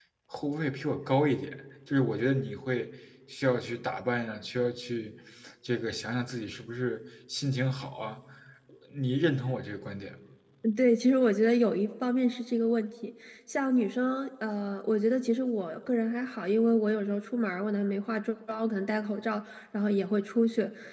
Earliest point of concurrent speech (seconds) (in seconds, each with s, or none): none